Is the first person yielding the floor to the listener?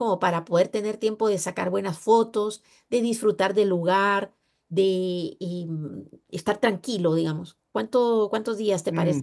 Yes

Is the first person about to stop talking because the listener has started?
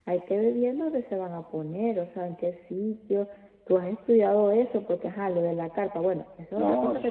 Yes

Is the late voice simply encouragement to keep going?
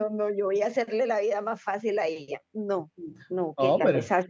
Yes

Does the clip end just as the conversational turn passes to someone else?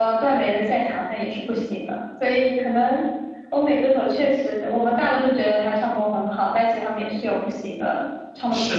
Yes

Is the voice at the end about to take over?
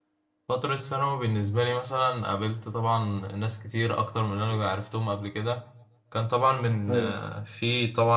No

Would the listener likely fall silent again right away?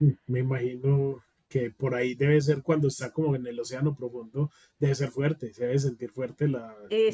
No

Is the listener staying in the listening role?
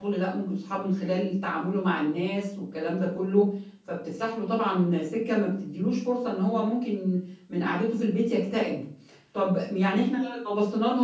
Yes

